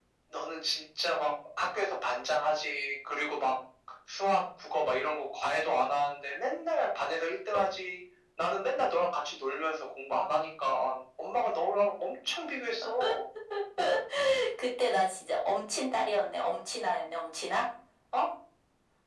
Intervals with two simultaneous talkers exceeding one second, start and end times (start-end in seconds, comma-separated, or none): none